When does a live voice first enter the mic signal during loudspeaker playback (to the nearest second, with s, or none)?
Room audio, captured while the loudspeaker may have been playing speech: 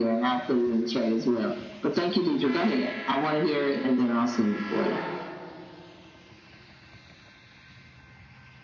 5 s